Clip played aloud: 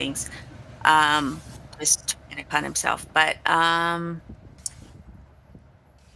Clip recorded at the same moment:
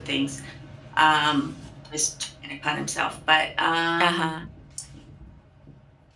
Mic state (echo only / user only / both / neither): both